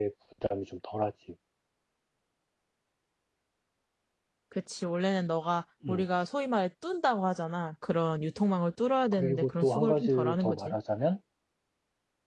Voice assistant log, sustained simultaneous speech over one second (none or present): present